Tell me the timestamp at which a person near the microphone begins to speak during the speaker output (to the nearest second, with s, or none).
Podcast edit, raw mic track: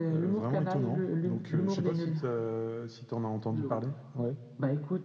3 s